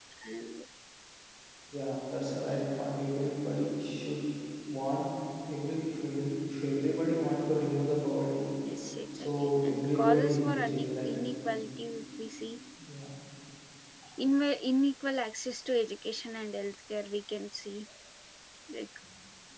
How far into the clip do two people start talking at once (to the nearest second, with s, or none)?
9 s